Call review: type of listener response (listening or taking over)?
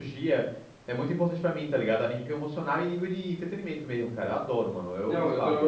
taking over